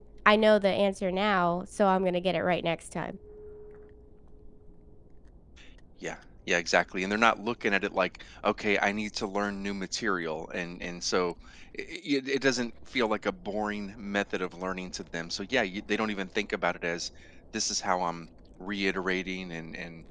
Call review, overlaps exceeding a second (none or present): none